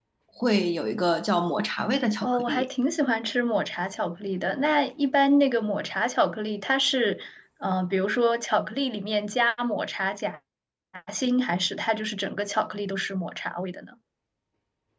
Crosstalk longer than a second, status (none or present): none